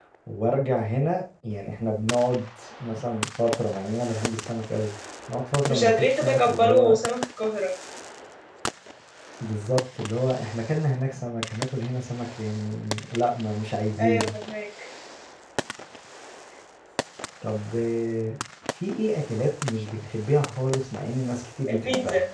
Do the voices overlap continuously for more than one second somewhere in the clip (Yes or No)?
Yes